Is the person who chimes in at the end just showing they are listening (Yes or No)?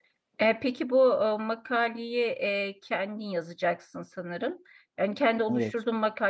Yes